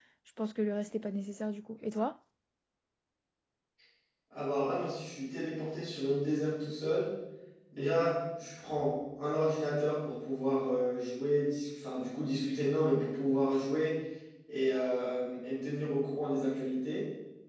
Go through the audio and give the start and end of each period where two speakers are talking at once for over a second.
none

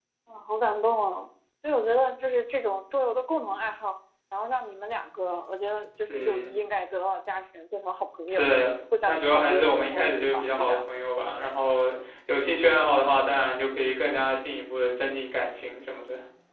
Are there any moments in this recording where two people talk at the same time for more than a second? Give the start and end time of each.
9.1-10.8

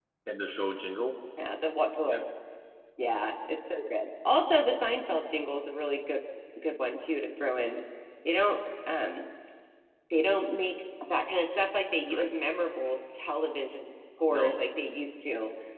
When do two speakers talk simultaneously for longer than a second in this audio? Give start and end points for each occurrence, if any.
none

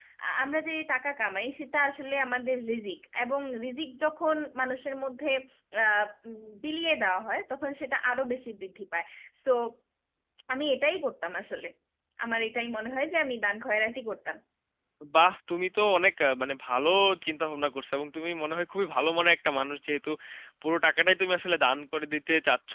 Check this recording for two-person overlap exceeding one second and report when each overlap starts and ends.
none

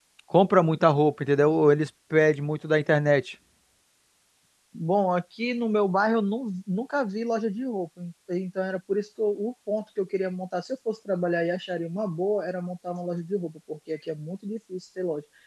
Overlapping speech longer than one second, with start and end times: none

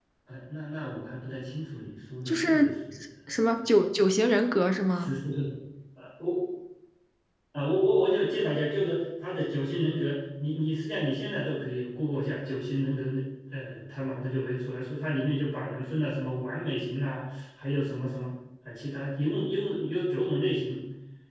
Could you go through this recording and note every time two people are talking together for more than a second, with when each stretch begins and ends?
none

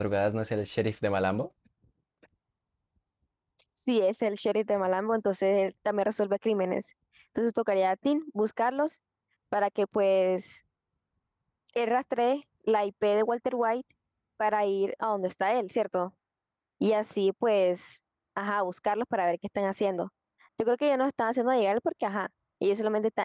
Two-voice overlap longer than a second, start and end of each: none

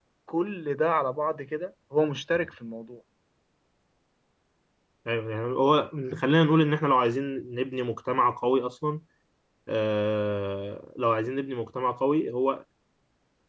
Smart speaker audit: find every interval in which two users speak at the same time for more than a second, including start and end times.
none

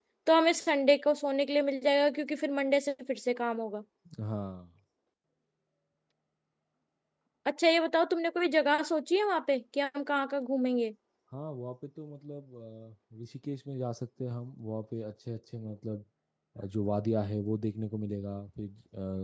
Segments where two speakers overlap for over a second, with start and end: none

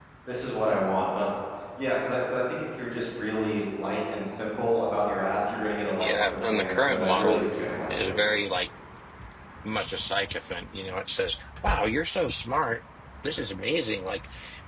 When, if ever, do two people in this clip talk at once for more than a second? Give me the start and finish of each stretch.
6.0-7.4

